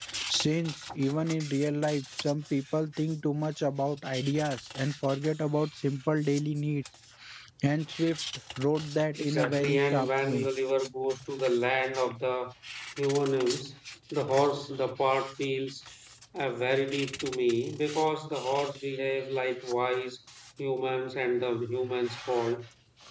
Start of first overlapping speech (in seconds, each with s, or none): 9.2 s